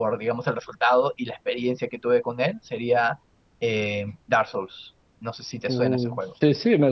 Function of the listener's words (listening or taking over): taking over